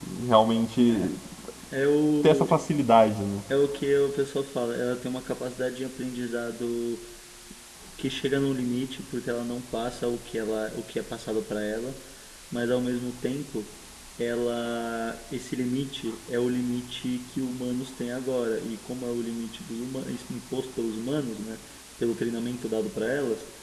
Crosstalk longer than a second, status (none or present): none